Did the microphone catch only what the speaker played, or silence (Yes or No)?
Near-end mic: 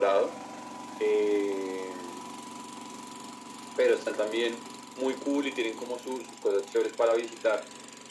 Yes